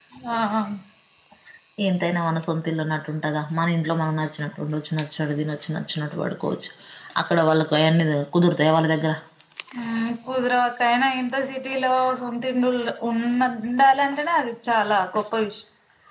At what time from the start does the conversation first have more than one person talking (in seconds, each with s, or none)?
none